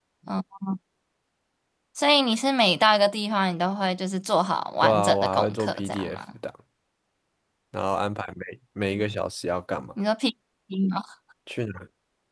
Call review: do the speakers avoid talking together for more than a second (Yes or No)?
No